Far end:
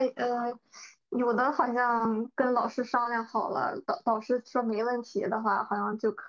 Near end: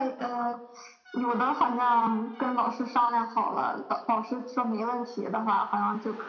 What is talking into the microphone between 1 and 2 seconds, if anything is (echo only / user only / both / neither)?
echo only